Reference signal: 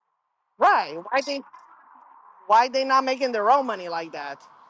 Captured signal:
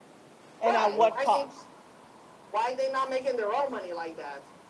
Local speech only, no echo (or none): and at what cost.